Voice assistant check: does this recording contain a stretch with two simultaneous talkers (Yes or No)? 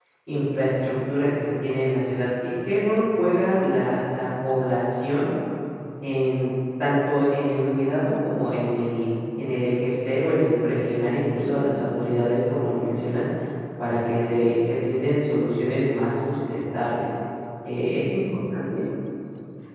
No